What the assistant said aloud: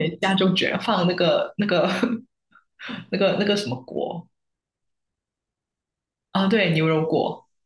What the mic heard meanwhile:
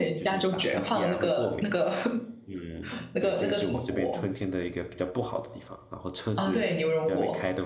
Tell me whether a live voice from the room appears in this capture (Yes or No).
Yes